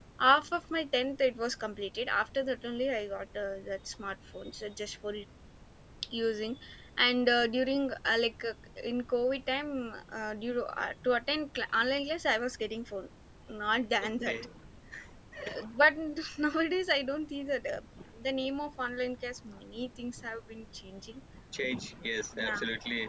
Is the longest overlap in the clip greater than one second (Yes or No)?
No